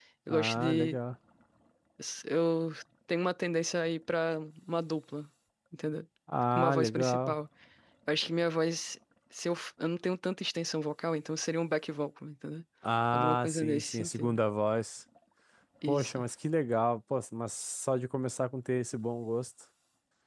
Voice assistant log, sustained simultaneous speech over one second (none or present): present